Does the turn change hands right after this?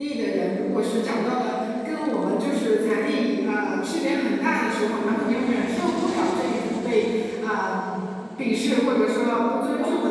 No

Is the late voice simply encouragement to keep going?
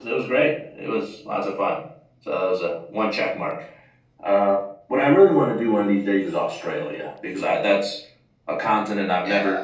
Yes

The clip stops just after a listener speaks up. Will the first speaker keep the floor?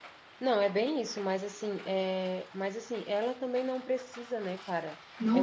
Yes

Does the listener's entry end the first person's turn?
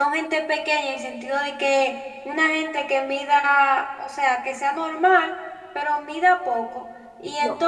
No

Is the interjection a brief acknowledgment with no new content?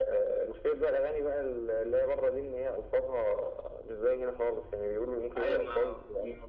No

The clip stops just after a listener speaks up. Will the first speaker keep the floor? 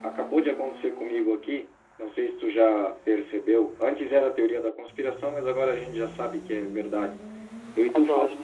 Yes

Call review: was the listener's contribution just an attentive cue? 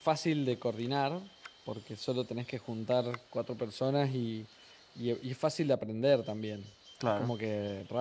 Yes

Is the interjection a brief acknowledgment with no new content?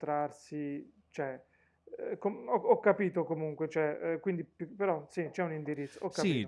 No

